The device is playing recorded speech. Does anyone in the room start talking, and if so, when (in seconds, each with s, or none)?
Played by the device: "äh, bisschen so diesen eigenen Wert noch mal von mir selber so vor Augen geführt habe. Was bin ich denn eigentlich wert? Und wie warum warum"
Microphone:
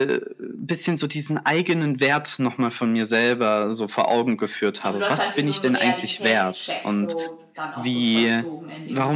4.8 s